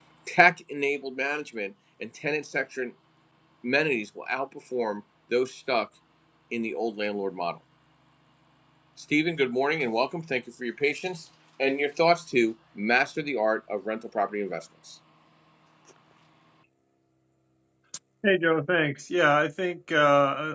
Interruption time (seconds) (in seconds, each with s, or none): none